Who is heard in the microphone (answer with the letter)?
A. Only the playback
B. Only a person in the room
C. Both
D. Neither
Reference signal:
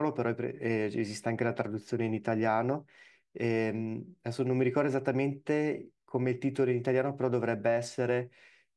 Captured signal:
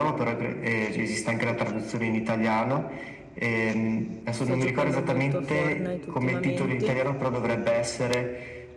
C